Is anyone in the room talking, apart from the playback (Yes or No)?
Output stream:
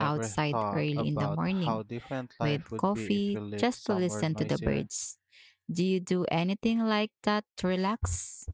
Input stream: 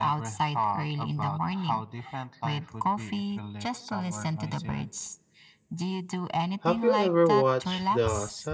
Yes